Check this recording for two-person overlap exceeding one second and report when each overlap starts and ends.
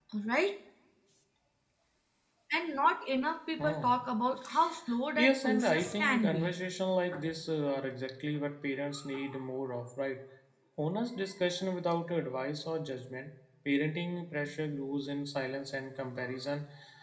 5.2-6.5

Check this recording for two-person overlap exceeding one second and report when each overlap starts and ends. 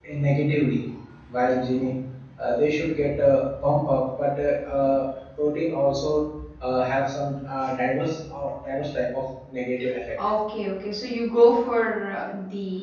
none

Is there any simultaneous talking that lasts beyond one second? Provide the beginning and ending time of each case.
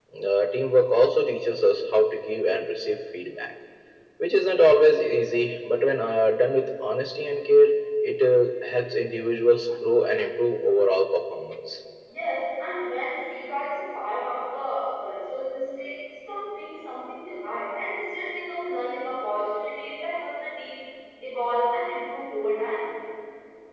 none

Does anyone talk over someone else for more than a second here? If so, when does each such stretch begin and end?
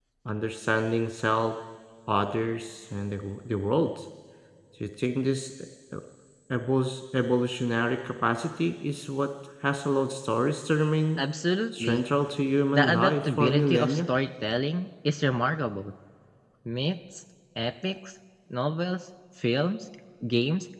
12.7-14.0

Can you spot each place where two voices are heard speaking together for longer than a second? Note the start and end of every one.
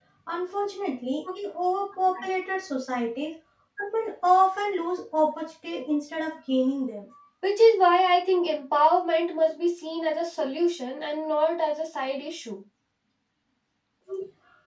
none

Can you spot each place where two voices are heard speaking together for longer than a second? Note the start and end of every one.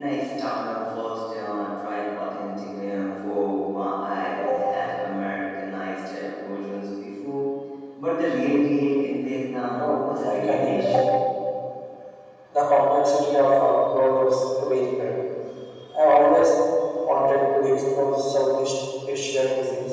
9.8-11.1

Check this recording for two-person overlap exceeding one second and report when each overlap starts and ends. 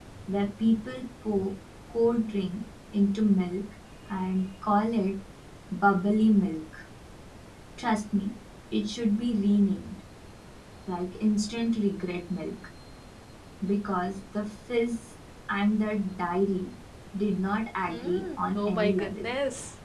17.9-19.3

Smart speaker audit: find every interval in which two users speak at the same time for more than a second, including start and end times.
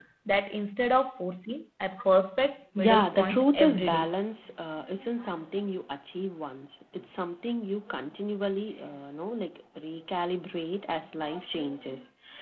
2.8-4.0

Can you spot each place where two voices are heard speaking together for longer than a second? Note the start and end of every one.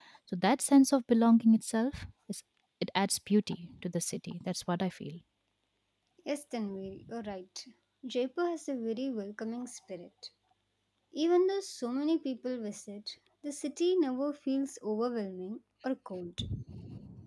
none

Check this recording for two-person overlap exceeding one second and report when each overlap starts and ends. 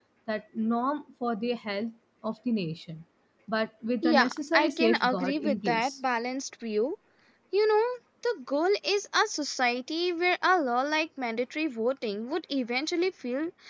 4.0-5.9

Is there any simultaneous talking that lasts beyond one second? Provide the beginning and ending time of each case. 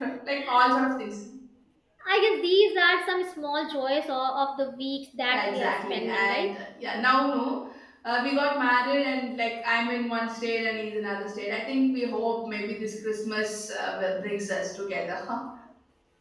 5.3-6.6

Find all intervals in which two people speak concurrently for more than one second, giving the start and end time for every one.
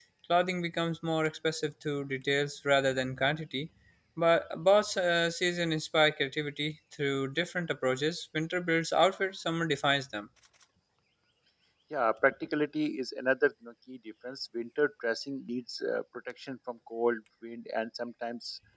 none

